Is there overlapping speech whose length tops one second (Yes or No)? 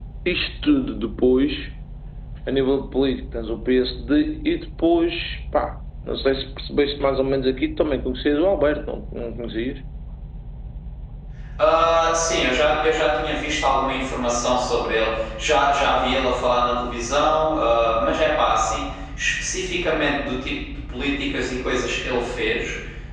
No